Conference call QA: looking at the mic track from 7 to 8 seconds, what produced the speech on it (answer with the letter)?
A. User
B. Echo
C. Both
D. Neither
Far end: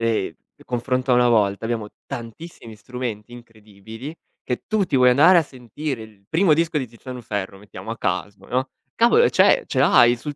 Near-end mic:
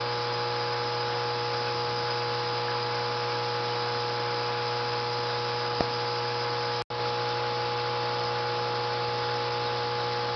D